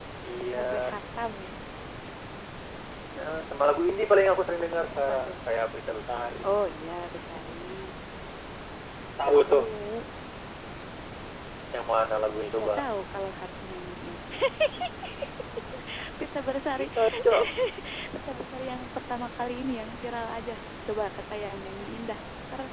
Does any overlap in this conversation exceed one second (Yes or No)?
No